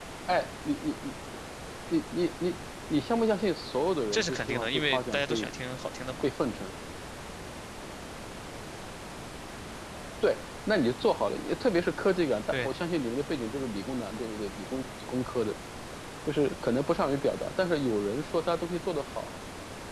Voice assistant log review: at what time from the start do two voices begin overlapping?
4 s

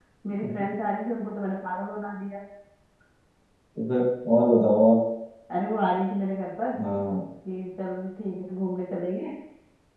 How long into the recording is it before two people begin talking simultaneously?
none

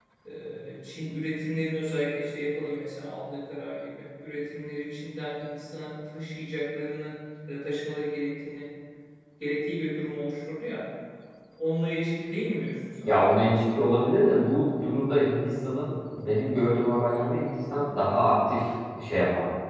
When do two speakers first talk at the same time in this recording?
none

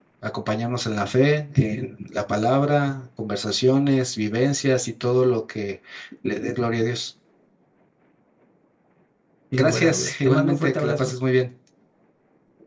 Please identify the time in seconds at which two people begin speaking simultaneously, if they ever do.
10 s

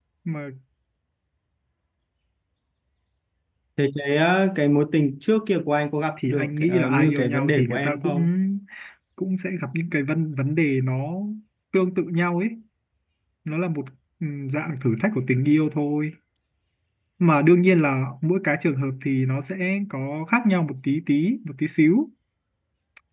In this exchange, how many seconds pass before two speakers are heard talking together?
6 s

